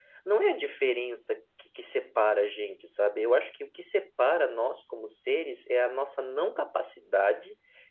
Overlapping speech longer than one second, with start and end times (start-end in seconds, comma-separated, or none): none